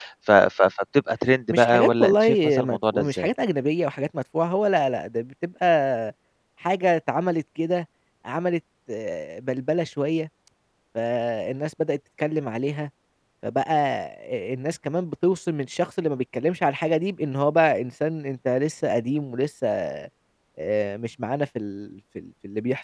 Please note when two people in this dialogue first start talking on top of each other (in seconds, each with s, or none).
1.5 s